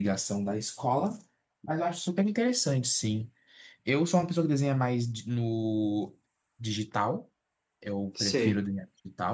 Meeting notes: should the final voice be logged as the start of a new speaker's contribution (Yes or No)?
No